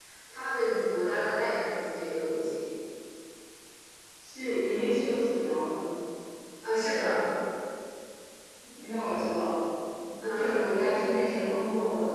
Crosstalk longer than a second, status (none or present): none